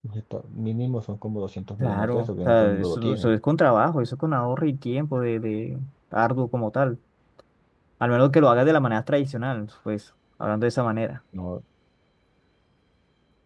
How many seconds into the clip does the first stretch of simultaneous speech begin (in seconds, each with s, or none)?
1.8 s